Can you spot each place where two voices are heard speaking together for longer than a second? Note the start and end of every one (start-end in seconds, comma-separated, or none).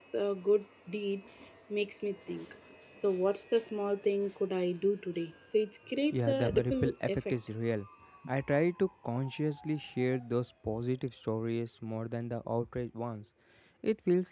6.1-7.3